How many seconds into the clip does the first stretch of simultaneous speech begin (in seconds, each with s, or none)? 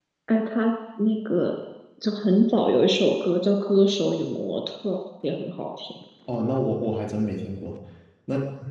none